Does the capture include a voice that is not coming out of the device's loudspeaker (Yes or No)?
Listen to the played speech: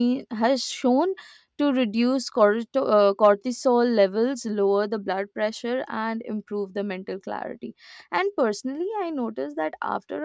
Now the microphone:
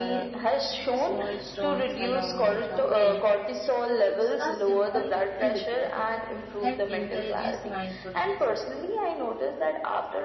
Yes